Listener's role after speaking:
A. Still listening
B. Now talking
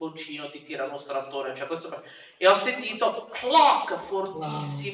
A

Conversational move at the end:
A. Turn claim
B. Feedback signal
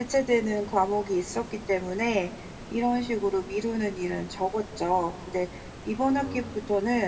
B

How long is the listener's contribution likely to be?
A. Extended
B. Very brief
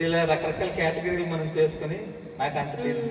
B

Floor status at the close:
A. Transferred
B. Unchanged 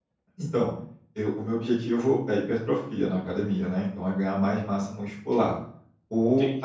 B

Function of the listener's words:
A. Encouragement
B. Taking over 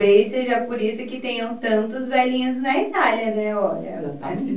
B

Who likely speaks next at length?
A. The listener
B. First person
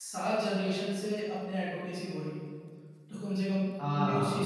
A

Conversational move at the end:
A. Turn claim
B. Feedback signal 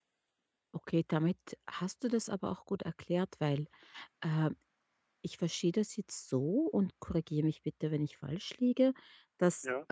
B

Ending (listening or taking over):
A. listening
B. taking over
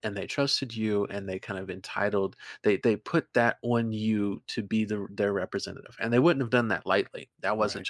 A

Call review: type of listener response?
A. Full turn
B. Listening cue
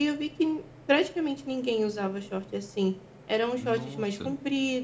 B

